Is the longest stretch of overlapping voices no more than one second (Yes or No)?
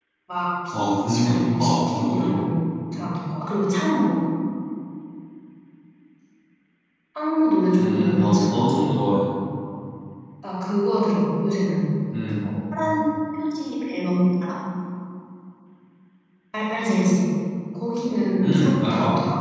No